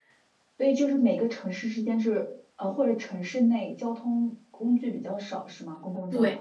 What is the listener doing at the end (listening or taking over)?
taking over